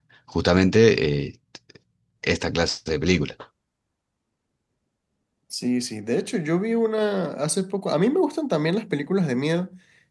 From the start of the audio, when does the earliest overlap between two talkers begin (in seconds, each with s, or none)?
none